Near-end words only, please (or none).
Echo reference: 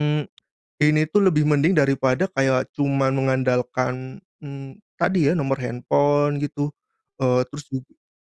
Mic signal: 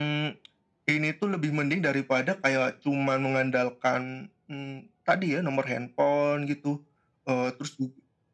none